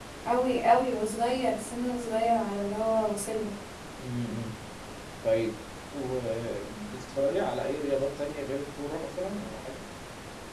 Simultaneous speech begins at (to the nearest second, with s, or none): none